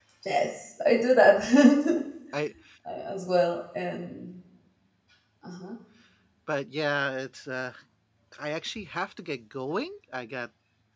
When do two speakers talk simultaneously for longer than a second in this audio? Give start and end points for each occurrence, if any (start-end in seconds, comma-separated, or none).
none